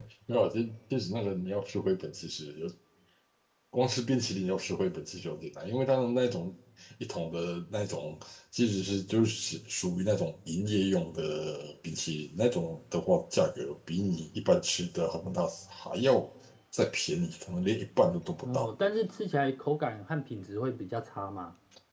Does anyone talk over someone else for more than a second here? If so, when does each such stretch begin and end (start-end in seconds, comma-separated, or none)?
none